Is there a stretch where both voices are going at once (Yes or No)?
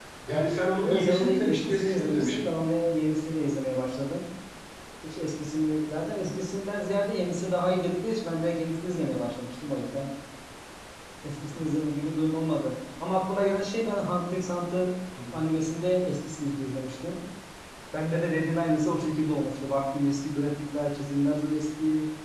Yes